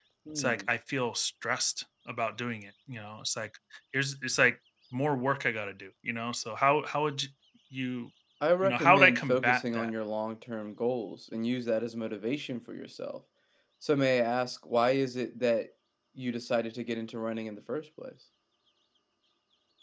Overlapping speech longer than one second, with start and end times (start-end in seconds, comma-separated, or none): 8.6-9.9